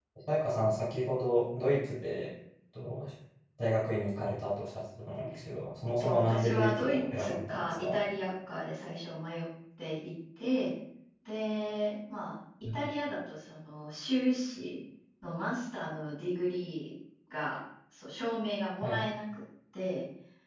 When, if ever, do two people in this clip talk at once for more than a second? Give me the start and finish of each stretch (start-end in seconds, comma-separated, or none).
6.0-8.0